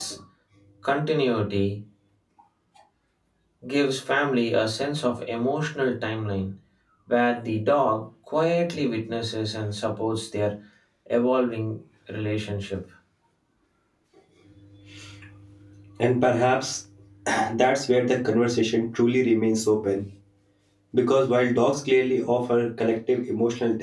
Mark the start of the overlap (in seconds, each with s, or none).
none